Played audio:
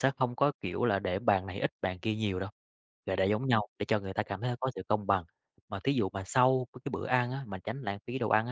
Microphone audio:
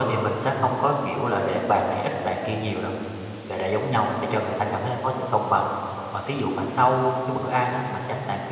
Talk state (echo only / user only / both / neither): echo only